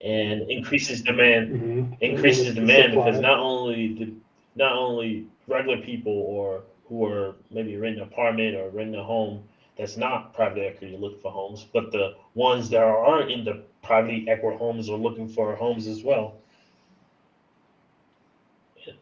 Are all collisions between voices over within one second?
No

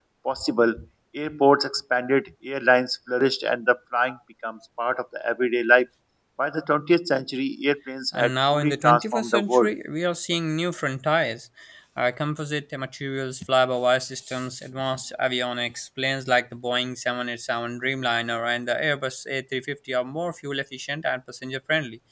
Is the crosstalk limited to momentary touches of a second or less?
No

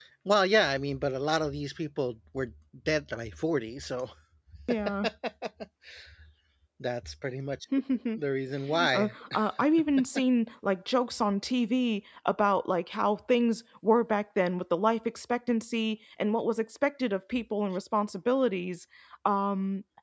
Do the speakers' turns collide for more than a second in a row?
No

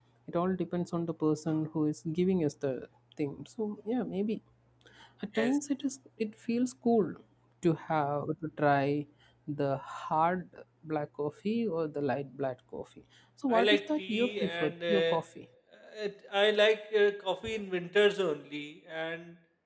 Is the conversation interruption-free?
No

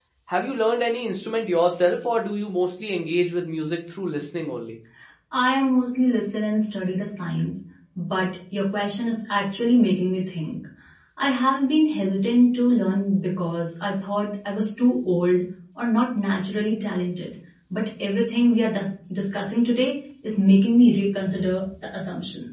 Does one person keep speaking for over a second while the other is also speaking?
No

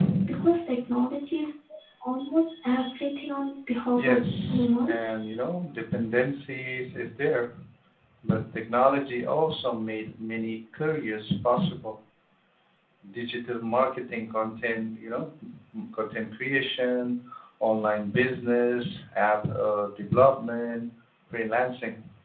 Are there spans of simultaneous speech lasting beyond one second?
Yes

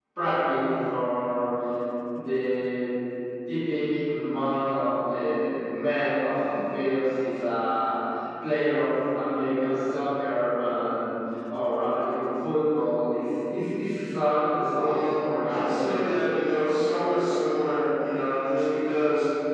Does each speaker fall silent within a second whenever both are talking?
No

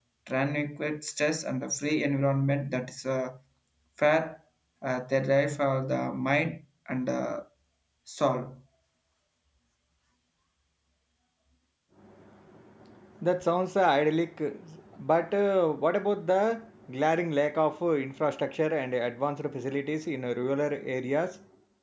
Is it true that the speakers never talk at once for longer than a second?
Yes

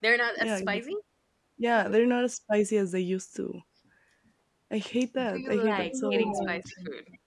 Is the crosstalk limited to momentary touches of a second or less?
No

